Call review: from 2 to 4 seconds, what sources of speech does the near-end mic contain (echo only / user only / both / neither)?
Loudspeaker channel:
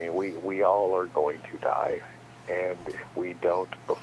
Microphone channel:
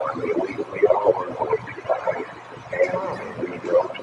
both